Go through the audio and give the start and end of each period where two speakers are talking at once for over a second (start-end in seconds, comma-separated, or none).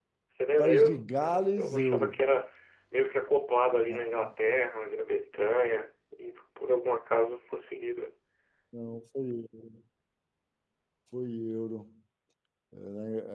0.6-2.2